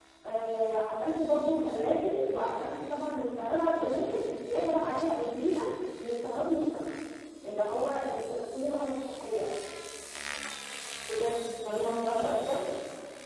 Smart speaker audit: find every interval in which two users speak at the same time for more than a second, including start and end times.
none

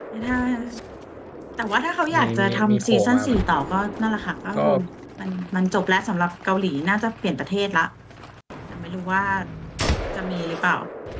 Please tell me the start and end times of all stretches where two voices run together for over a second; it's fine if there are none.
2.1-3.4

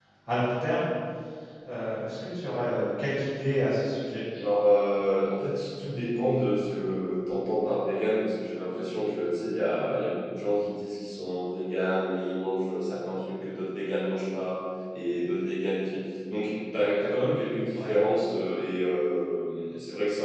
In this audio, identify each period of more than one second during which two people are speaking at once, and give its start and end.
none

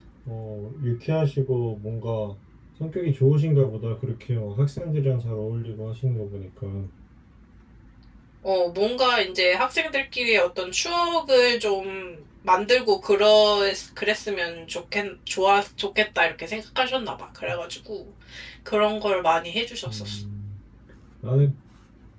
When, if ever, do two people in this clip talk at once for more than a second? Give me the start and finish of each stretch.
none

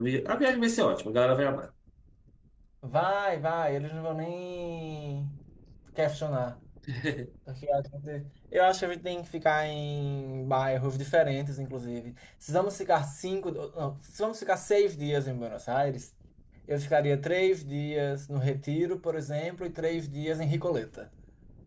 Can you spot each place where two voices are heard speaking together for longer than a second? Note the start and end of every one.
none

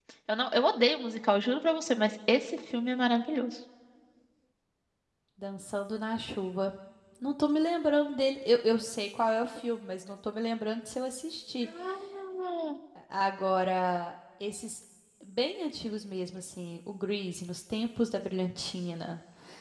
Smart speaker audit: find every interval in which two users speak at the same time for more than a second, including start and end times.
none

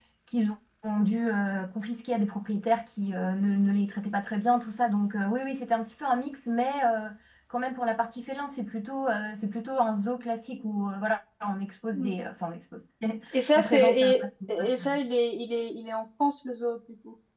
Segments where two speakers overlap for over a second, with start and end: 13.6-14.8

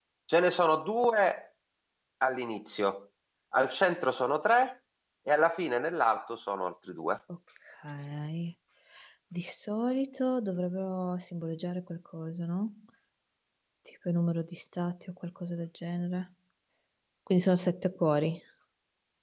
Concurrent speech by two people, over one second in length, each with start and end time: none

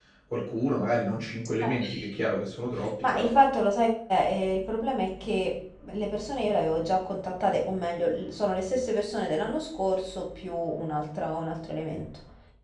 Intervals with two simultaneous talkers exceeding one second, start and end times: none

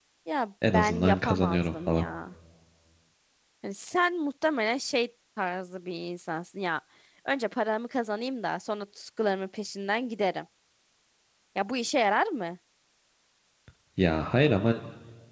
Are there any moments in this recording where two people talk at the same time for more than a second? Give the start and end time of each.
0.7-2.0

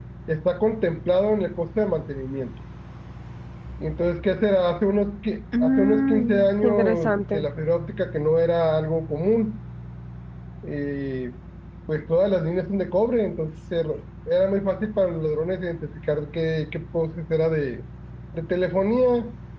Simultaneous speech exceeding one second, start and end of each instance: 5.6-7.5

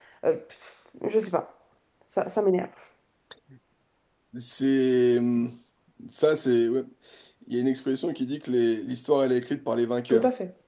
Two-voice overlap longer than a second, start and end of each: none

